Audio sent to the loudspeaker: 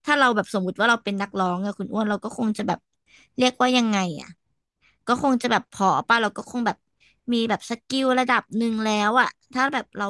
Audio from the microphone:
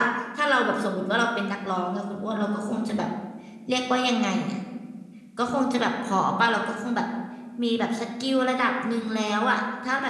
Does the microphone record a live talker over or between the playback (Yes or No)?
No